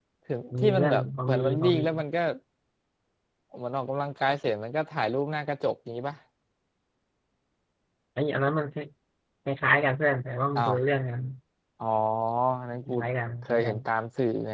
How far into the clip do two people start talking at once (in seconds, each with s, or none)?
0.6 s